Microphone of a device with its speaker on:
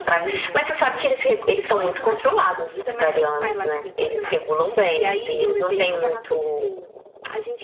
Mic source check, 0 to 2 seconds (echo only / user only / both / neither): both